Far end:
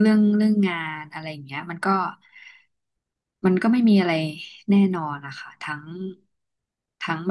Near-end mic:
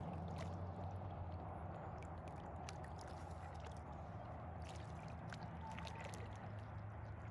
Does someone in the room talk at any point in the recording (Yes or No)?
No